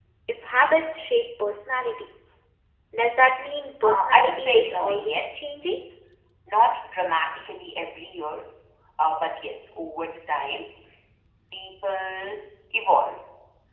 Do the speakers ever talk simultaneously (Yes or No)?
Yes